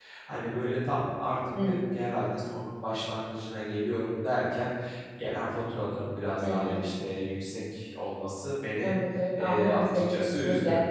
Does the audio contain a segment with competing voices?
Yes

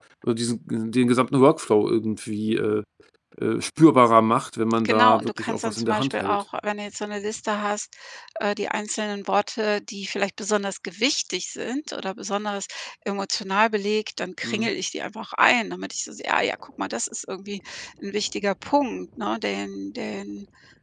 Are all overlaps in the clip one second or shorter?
No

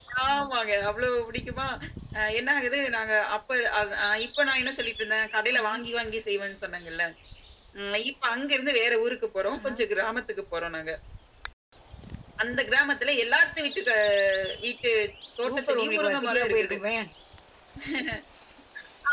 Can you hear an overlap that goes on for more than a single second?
Yes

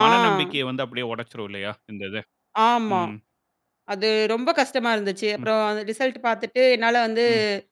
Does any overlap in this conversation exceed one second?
No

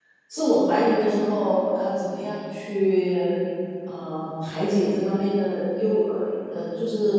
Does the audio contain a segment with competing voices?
No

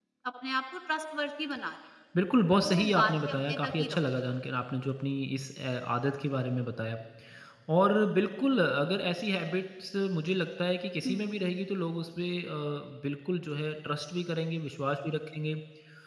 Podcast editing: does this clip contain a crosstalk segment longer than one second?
Yes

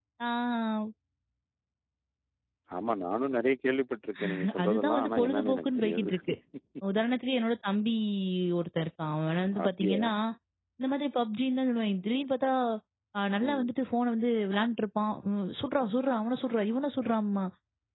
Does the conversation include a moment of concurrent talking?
Yes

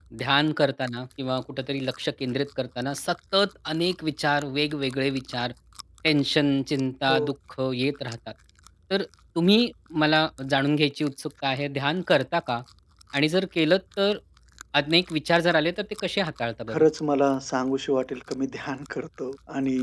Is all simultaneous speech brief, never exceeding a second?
Yes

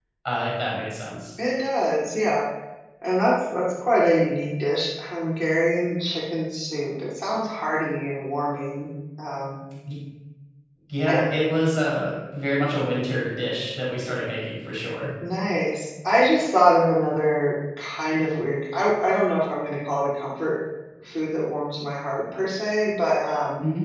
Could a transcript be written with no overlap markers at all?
Yes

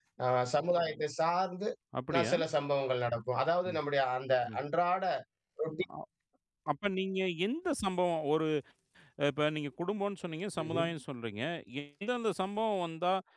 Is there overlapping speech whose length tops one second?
No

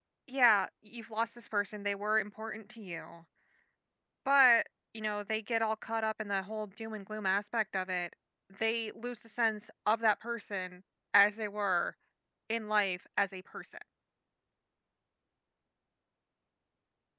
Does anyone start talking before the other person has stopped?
No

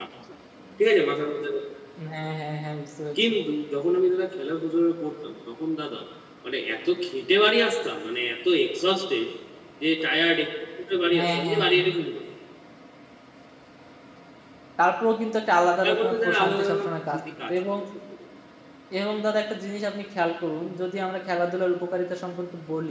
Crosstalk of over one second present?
Yes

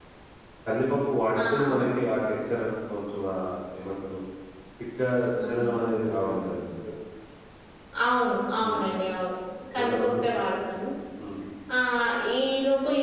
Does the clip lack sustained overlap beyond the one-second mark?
Yes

